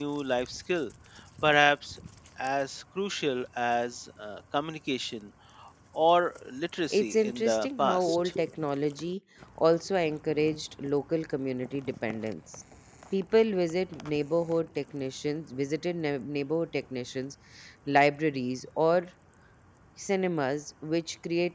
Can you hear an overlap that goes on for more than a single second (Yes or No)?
Yes